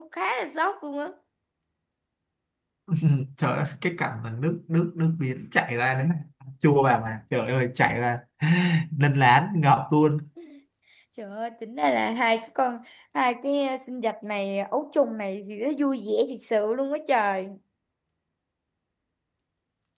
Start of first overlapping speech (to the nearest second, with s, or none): none